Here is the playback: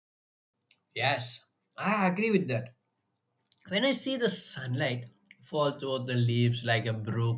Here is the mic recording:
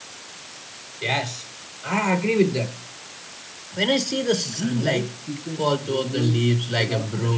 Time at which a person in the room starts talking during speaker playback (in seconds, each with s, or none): 4.5 s